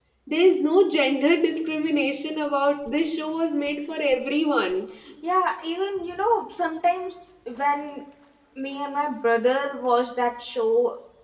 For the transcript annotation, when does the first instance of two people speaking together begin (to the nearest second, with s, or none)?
none